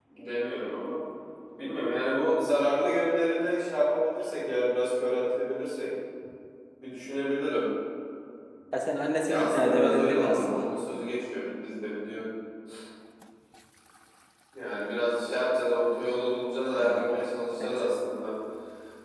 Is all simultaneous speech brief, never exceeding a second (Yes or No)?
No